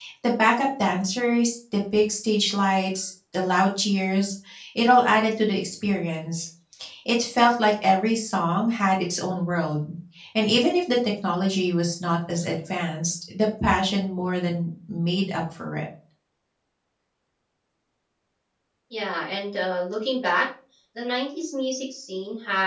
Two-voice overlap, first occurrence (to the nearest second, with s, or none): none